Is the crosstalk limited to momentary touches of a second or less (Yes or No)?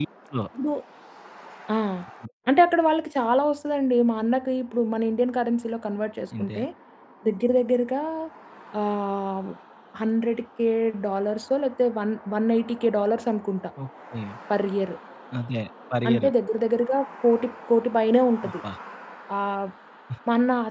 Yes